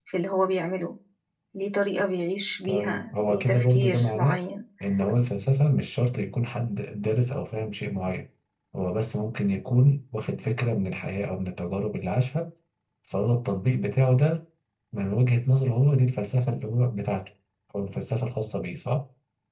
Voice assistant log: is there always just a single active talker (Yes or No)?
No